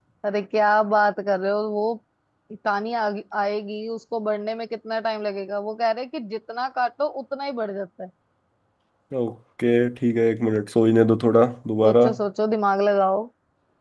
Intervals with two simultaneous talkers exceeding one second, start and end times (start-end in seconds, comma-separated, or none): none